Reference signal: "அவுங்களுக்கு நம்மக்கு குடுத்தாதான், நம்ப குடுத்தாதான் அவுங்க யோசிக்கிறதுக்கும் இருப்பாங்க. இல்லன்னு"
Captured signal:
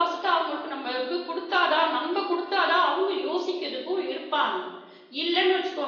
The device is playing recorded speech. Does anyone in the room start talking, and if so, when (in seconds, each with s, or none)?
none